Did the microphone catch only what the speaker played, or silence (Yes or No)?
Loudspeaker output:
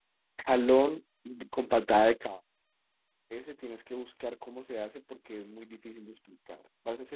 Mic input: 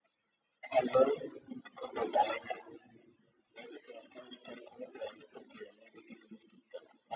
Yes